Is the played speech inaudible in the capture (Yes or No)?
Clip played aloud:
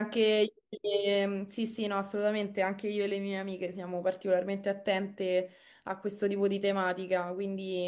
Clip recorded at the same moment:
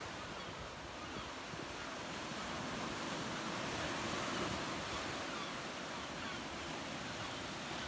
Yes